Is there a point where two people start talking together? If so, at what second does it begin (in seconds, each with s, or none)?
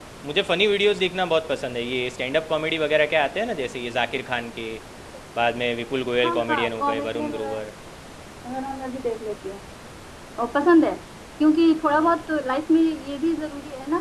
6.2 s